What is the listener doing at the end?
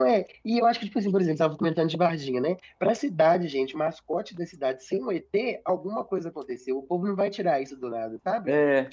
listening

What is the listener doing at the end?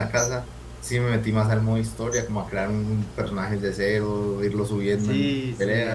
taking over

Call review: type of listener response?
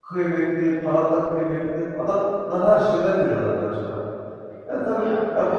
listening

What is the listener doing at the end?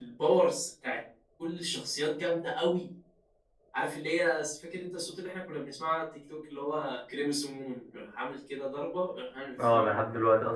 taking over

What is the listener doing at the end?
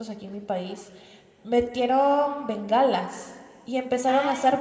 listening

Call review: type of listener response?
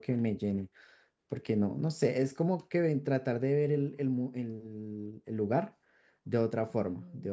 taking over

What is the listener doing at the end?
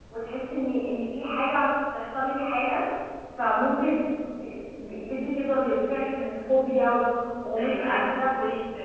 taking over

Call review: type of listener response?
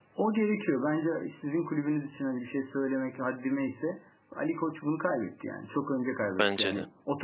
listening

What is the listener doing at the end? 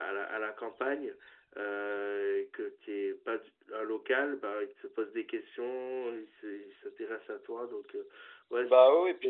taking over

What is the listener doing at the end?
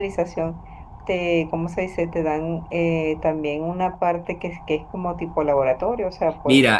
taking over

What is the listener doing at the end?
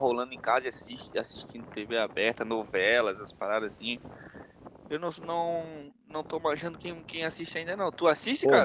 taking over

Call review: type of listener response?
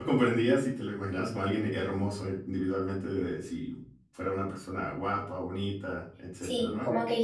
taking over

